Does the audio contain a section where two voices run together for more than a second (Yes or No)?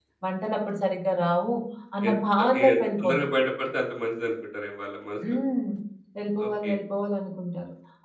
Yes